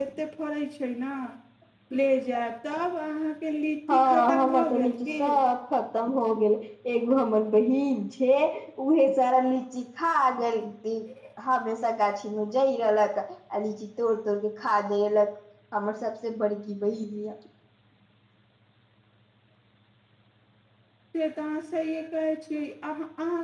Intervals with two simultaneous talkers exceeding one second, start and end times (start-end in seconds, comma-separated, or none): 3.9-5.4